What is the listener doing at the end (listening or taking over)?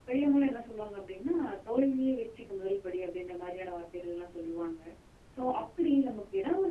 listening